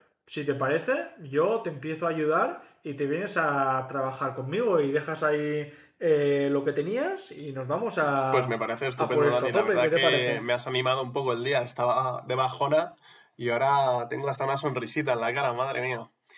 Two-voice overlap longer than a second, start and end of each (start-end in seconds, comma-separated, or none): 9.0-10.4